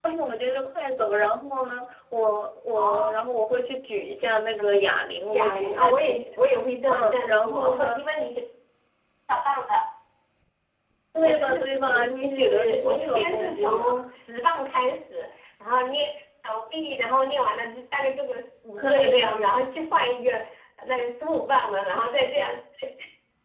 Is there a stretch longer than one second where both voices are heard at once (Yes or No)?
Yes